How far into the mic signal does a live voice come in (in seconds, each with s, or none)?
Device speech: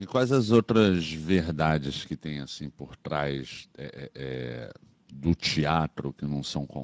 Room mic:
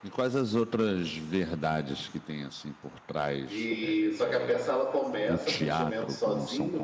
3.5 s